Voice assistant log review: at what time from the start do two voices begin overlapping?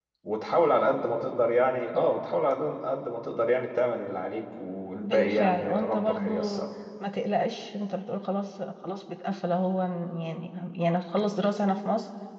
5.0 s

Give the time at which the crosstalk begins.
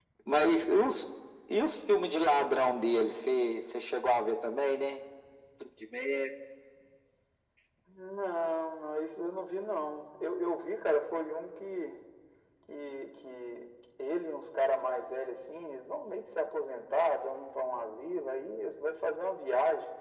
none

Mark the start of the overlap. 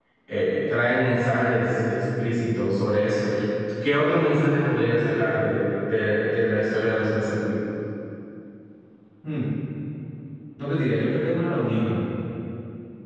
none

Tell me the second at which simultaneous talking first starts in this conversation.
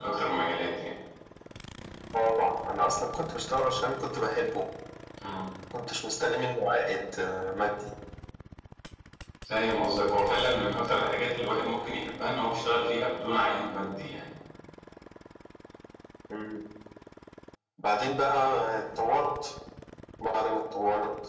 none

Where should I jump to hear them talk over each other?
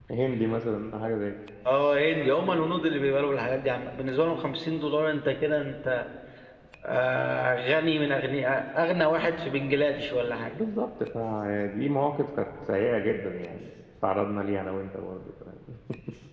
none

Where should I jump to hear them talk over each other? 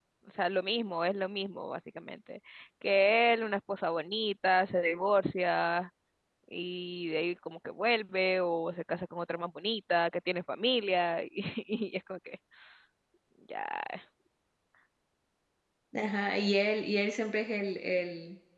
none

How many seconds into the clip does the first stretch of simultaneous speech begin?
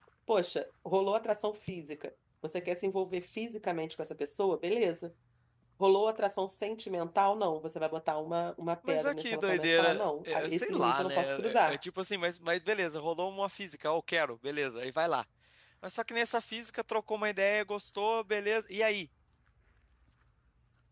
8.8 s

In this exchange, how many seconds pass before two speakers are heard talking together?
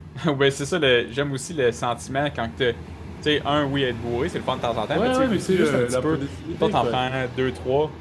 4.9 s

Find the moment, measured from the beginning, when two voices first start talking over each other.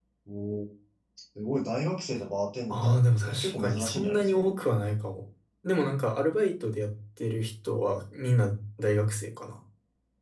2.7 s

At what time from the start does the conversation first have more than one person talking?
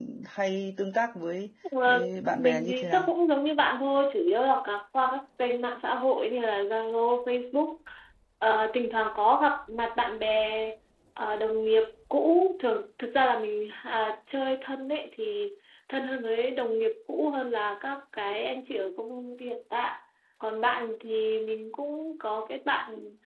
1.6 s

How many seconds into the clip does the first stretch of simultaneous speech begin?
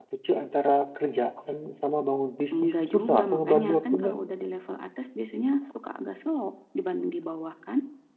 2.5 s

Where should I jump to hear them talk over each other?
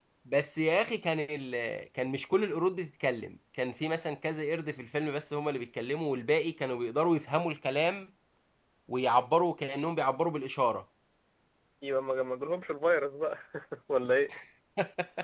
none

